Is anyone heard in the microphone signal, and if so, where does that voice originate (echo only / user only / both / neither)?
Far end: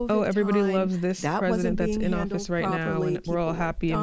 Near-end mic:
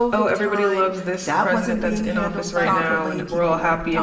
both